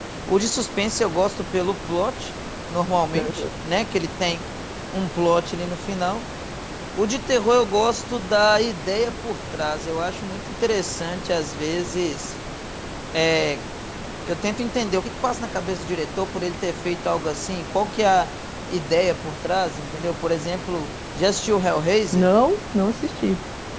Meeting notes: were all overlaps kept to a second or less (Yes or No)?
Yes